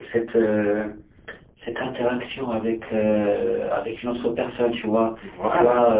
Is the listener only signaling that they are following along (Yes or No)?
Yes